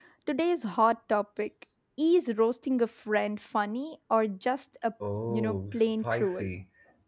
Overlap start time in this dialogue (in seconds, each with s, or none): 5.3 s